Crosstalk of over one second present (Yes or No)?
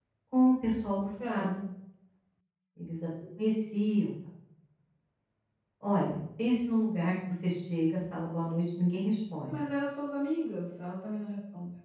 No